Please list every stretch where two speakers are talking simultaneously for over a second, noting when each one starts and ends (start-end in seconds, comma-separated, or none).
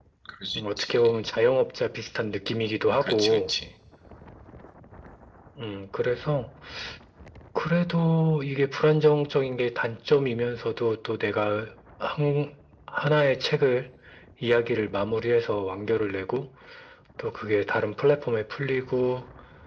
none